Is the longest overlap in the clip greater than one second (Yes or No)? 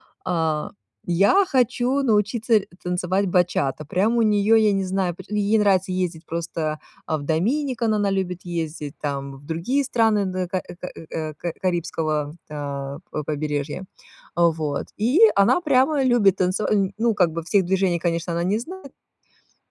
No